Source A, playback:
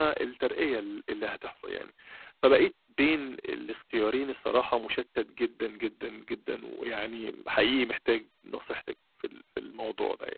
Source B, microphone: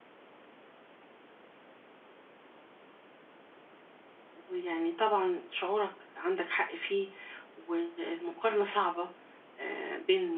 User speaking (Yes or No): Yes